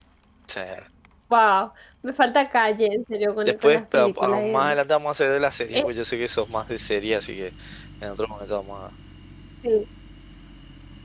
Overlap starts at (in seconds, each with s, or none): 3.4 s